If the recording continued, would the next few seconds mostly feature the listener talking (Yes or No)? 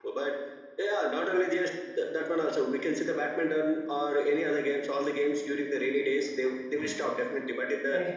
No